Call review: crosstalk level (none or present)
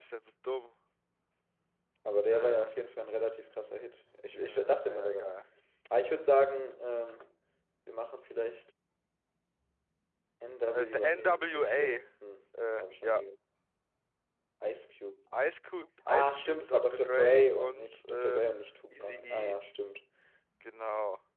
present